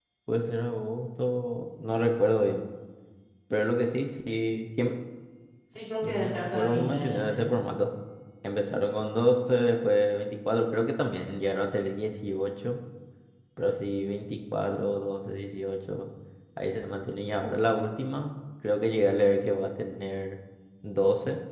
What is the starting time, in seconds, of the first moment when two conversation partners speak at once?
6.0 s

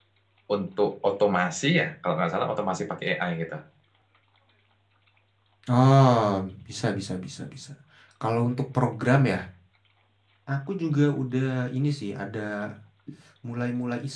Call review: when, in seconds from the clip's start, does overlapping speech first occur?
none

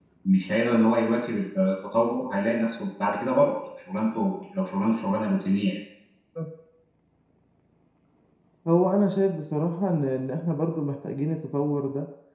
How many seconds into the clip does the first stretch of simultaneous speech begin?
none

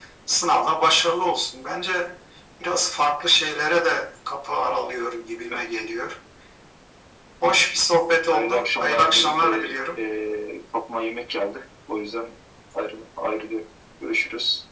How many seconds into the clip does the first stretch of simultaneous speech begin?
8.3 s

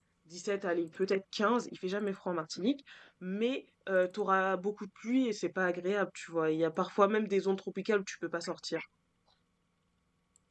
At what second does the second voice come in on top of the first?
none

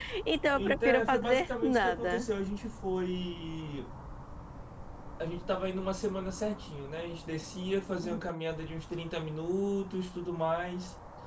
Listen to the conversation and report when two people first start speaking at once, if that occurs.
0.5 s

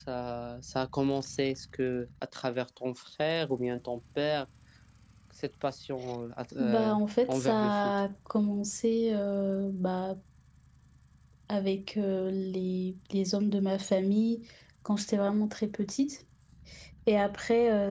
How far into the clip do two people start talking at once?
6.6 s

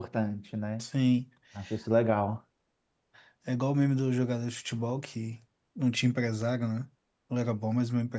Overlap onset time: none

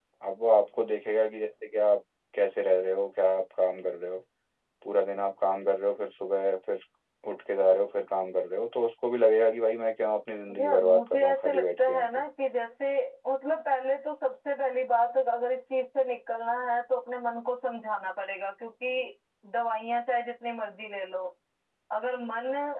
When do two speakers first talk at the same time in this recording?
10.5 s

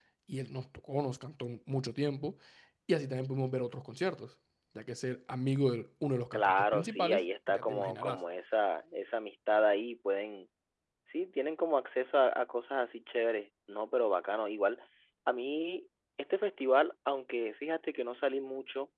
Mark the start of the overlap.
6.3 s

